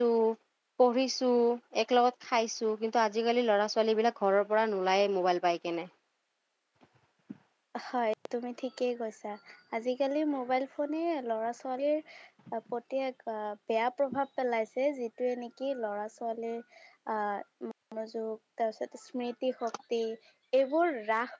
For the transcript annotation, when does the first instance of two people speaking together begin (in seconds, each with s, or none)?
none